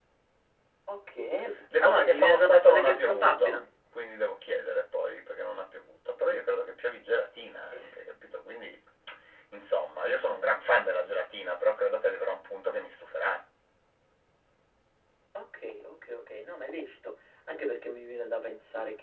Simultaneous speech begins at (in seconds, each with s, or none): 1.7 s